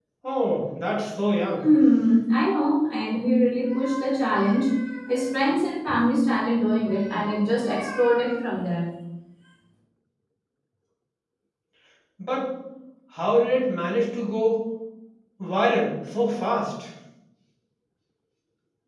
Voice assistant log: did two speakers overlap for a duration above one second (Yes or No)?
No